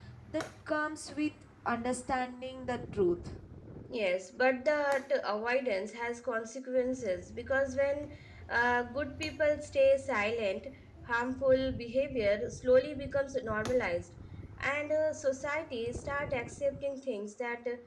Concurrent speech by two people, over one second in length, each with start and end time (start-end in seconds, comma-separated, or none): none